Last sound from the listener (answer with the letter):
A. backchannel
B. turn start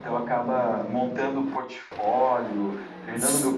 B